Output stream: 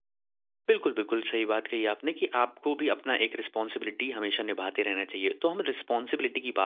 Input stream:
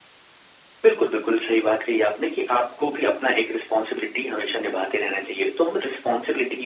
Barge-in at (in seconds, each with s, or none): none